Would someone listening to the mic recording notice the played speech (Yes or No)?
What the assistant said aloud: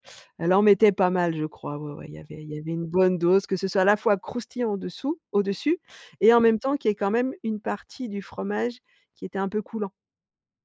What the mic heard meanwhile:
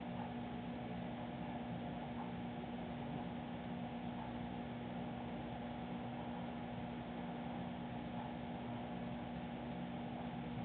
No